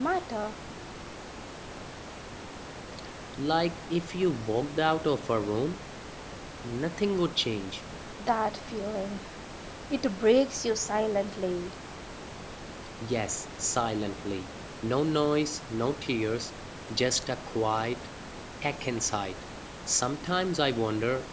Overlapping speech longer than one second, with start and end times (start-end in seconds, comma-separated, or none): none